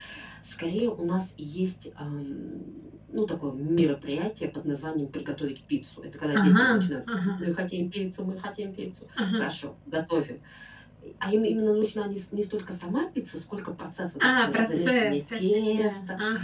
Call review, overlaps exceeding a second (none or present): present